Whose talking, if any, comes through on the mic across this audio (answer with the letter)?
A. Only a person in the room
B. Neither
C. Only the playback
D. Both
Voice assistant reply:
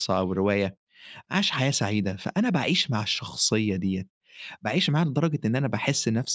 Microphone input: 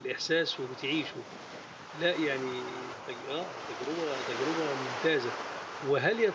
A